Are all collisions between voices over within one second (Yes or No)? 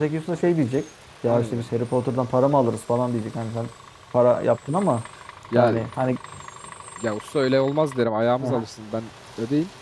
Yes